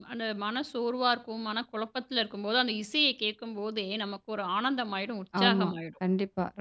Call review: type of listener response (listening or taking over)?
taking over